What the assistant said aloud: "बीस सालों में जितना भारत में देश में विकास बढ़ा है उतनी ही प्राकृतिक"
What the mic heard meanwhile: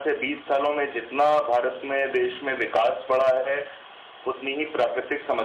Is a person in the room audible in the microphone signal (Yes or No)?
No